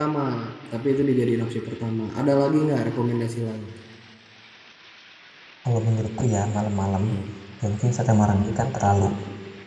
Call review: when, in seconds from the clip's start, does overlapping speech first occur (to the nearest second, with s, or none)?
none